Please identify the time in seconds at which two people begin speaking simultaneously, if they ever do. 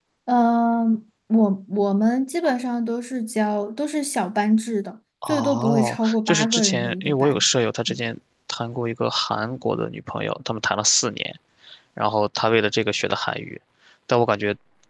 5.2 s

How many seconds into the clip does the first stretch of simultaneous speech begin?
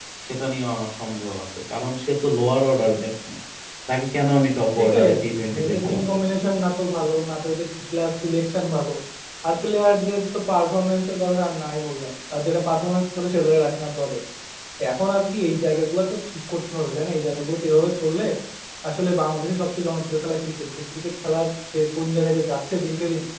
4.8 s

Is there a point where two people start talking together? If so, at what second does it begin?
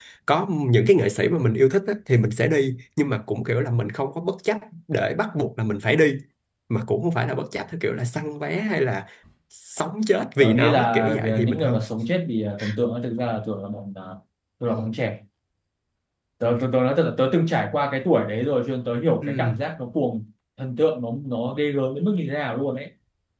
10.4 s

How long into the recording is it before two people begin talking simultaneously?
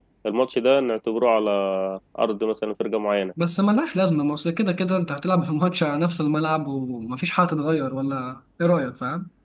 none

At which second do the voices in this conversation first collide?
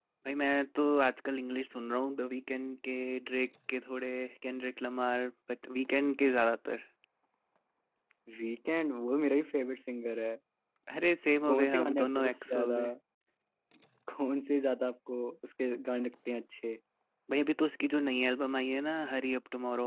11.5 s

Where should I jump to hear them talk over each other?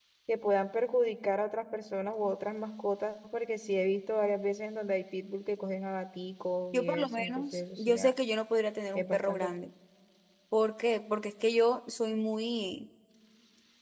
6.7 s

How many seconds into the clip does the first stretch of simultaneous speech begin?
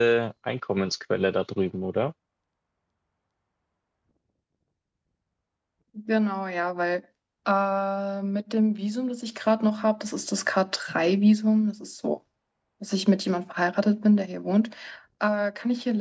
none

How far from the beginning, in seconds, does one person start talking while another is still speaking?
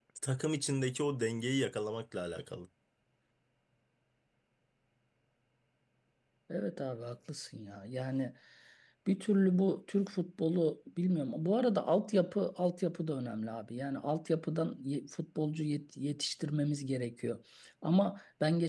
none

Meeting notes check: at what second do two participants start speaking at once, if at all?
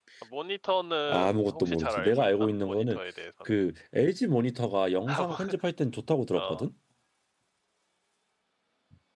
1.1 s

